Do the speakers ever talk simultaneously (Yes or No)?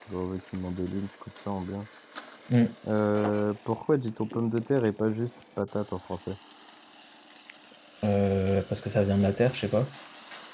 No